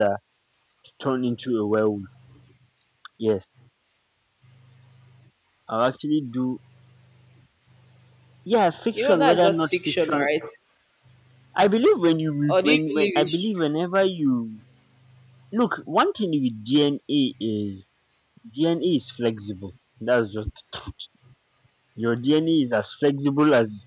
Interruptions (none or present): present